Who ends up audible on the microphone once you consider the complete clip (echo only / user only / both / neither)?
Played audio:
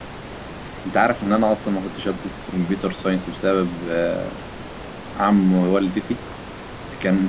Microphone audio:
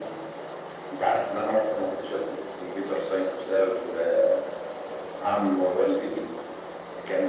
echo only